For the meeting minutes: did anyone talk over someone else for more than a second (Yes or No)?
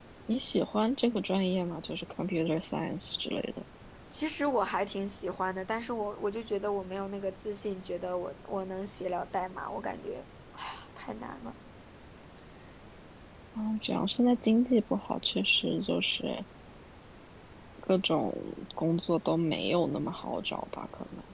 No